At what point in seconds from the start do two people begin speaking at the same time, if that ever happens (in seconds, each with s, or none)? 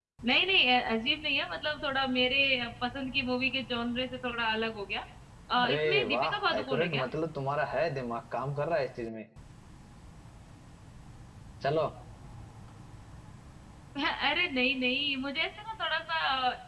5.6 s